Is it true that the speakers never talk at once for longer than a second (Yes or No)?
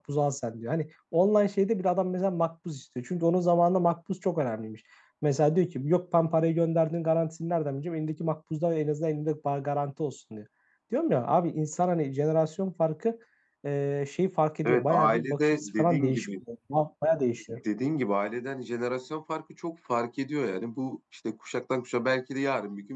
No